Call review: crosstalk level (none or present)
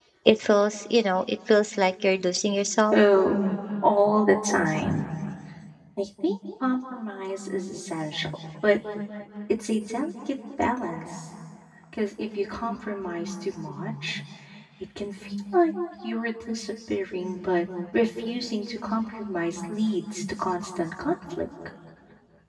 none